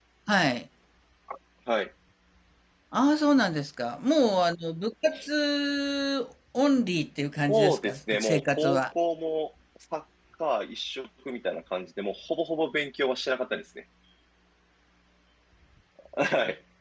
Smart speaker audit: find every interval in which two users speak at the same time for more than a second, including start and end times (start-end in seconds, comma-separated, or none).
7.5-8.8